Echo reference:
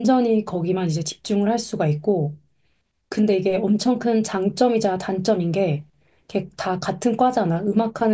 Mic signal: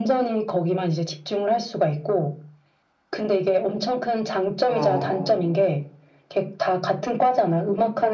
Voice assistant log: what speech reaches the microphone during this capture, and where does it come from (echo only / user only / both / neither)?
both